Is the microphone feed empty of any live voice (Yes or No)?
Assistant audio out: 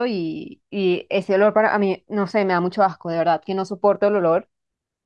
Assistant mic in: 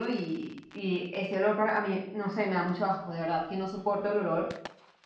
Yes